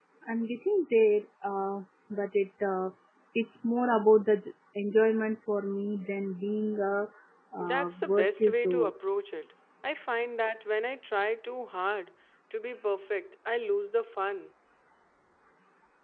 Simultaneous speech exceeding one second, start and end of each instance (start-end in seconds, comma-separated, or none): 7.6-8.9